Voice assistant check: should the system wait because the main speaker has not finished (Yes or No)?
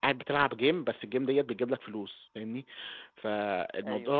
Yes